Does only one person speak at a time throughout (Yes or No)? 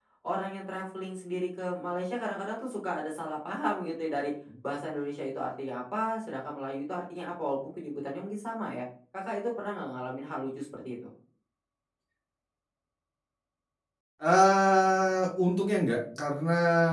Yes